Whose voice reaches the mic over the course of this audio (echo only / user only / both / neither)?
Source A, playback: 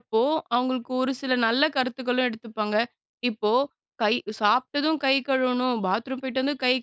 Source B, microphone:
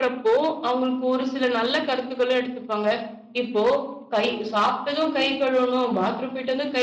echo only